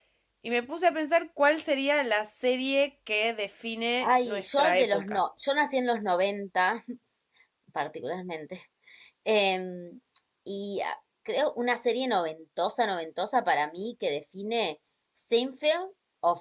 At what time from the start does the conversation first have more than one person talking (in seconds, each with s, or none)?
4.0 s